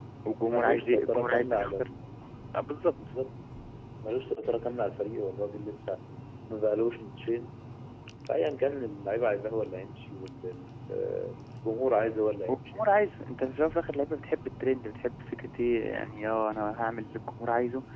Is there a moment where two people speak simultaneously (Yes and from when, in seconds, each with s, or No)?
Yes, from 0.5 s